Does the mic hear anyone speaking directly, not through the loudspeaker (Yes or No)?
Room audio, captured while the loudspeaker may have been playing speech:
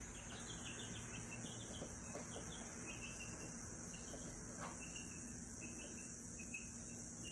No